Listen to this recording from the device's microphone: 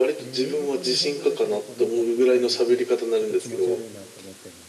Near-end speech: present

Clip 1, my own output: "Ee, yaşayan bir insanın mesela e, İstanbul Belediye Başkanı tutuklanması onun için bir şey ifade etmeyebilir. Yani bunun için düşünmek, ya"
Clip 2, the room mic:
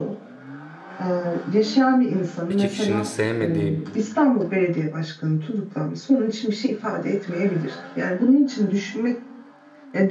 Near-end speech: present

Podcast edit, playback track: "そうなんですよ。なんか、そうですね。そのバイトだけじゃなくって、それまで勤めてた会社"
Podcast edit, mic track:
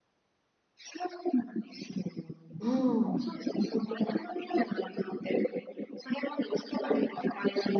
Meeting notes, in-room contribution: present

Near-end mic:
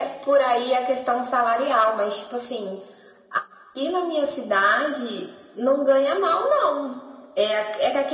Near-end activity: none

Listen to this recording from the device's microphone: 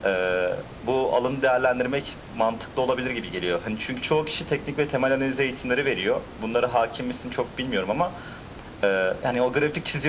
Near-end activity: none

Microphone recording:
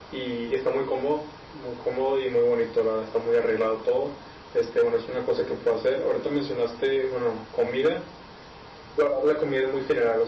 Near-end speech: none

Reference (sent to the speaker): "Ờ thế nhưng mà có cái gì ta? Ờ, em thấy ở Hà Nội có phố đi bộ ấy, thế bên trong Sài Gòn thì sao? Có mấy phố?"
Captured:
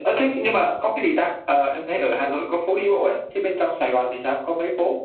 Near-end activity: none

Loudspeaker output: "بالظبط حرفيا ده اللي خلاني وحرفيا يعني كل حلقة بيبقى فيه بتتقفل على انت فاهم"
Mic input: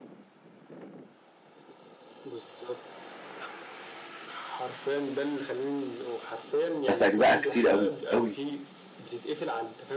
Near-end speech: present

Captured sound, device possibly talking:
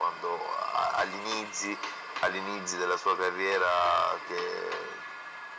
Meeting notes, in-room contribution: none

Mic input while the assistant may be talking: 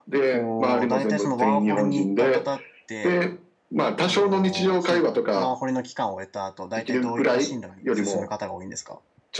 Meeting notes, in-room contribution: present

